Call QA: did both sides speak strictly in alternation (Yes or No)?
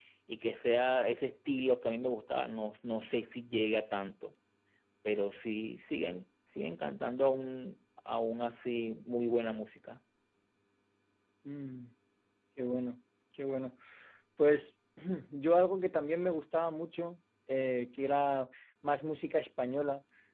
Yes